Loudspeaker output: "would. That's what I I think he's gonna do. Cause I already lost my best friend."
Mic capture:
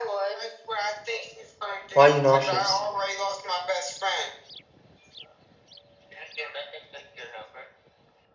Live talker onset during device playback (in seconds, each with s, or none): 1.9 s